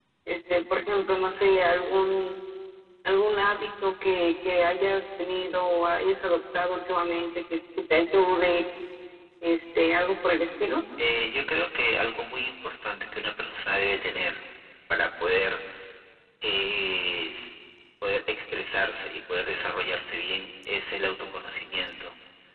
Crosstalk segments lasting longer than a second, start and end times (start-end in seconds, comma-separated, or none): none